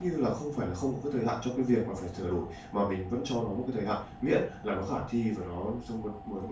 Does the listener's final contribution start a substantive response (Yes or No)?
No